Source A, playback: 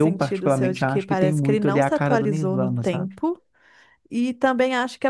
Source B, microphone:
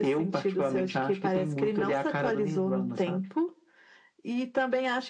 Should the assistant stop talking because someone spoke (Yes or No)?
No